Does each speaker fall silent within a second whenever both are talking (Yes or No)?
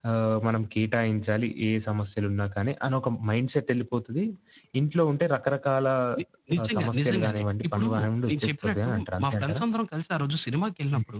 No